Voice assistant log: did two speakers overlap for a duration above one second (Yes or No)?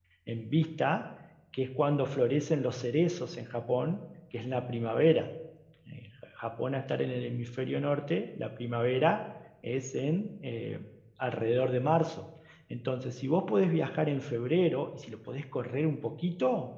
No